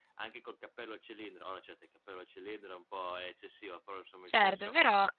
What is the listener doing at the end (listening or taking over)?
listening